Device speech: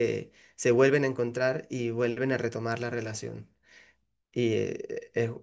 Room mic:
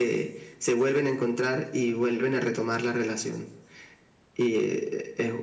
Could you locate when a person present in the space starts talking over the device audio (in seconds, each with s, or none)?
none